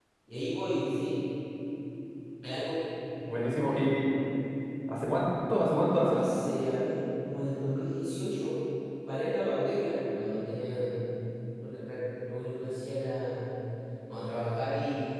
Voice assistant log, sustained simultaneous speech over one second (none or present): none